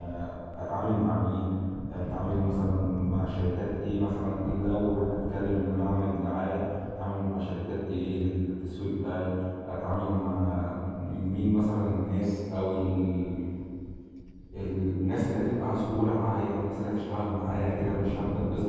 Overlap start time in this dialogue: none

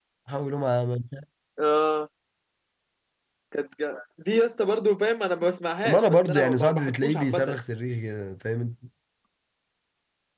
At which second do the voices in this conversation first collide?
5.8 s

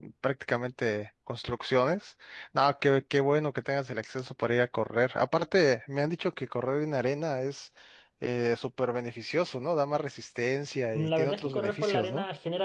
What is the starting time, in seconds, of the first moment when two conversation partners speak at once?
10.9 s

